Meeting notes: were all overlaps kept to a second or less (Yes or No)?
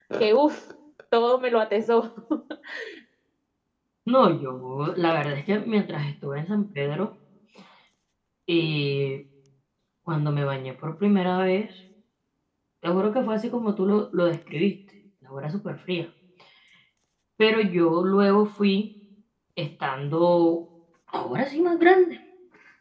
Yes